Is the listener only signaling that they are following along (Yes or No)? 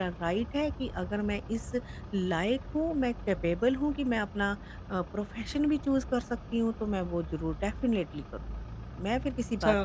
No